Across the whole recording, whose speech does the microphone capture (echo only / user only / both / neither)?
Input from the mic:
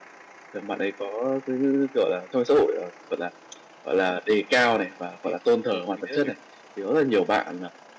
both